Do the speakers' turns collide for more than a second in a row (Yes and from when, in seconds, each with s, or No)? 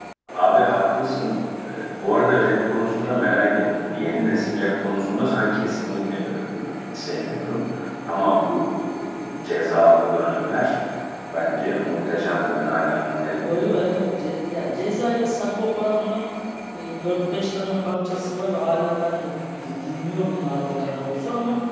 No